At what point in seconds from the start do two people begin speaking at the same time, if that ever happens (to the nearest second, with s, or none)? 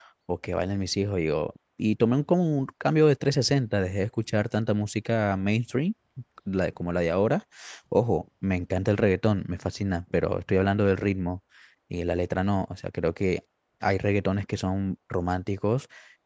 none